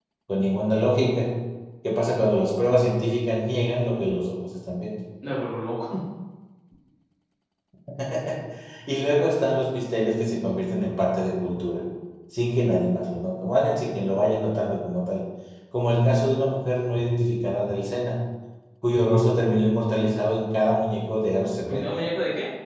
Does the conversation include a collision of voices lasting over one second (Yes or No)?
No